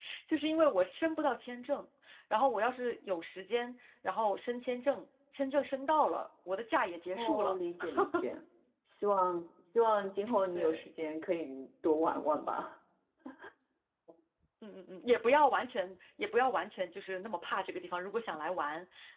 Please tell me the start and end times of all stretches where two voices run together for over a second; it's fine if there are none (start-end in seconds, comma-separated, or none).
none